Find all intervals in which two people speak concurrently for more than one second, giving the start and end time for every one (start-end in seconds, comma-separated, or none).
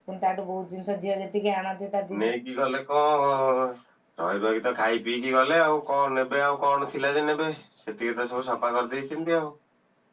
none